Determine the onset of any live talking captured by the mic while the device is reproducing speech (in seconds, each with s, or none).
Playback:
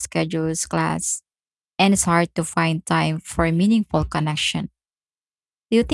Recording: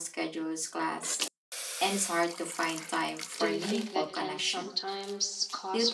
3.3 s